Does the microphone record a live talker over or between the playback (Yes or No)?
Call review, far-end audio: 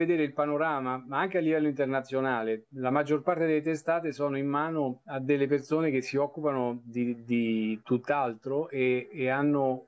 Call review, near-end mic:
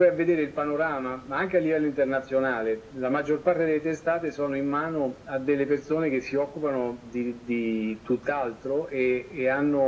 No